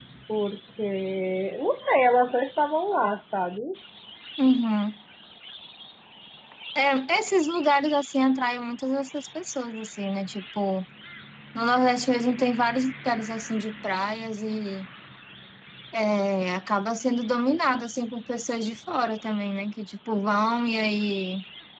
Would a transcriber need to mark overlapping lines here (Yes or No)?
No